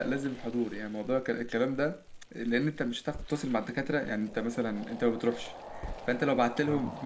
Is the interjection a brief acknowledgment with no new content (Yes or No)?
Yes